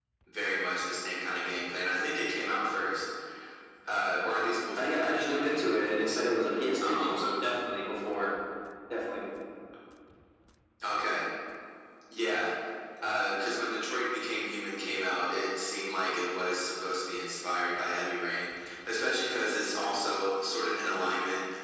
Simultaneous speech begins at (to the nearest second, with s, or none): 5 s